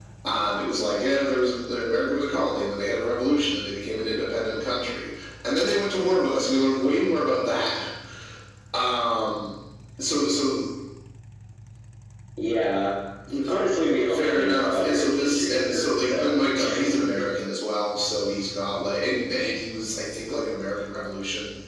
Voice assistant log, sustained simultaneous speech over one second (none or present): present